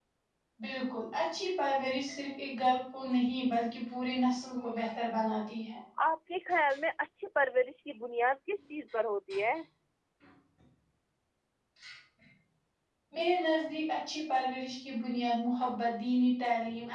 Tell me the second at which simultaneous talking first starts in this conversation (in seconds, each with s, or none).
none